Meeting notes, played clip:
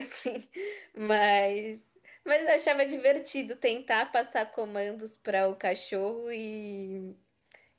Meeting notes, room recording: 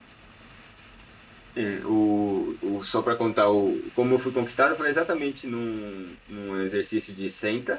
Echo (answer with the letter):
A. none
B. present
A